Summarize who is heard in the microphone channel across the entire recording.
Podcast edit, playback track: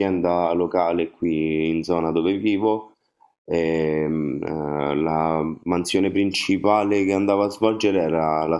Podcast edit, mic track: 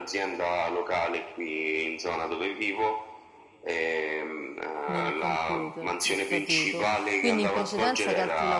both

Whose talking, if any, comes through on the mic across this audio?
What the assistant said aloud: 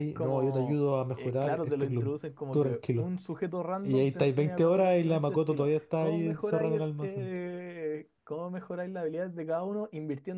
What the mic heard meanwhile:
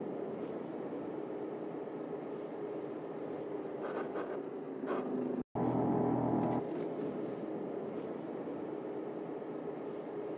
neither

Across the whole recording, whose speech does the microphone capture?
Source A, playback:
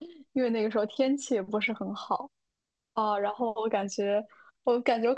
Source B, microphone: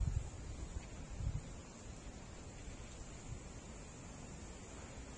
neither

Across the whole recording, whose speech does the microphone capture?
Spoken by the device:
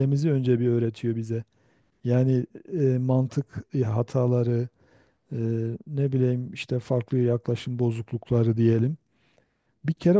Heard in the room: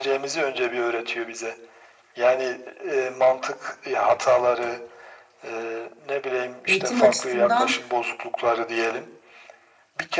both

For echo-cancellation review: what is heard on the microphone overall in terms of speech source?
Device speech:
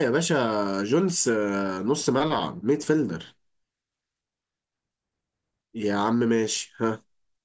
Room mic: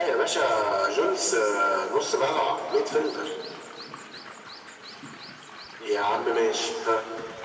echo only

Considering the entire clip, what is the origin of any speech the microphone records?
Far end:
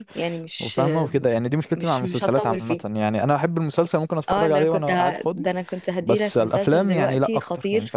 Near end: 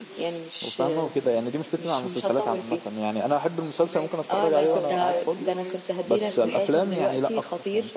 both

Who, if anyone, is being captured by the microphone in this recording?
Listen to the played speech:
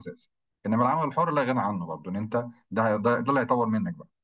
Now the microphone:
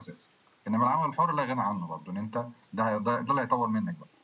echo only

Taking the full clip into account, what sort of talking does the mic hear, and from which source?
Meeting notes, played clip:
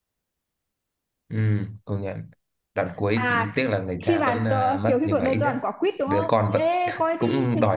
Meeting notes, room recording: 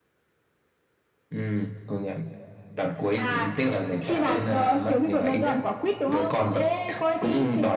echo only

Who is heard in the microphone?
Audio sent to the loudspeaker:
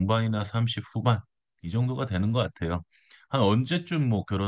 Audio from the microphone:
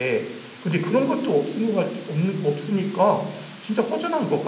user only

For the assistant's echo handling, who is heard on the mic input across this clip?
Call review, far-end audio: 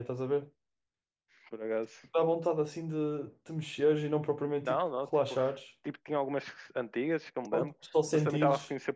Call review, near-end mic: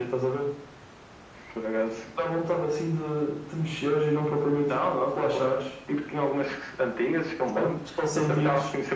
echo only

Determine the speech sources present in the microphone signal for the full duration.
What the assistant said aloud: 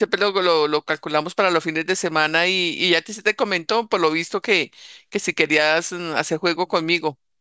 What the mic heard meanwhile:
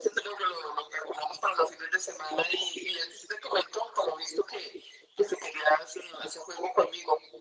echo only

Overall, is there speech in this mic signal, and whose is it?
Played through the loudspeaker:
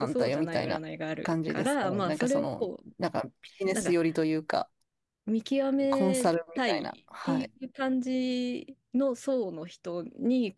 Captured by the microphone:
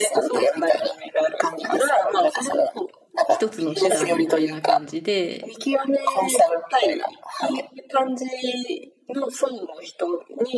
both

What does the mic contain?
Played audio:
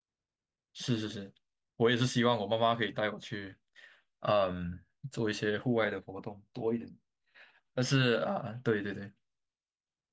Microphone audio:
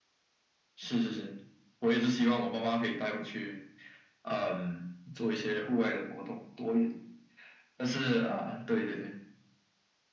echo only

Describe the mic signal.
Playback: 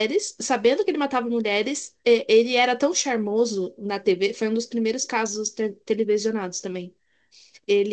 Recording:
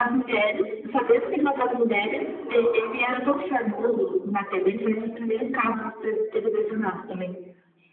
both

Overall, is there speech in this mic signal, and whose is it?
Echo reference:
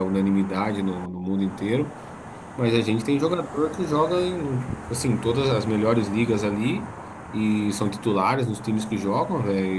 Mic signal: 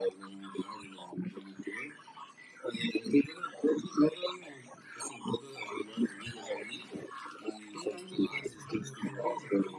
both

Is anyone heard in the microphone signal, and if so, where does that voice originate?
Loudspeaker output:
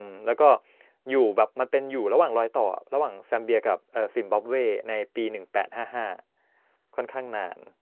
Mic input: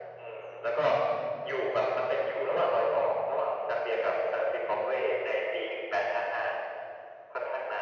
echo only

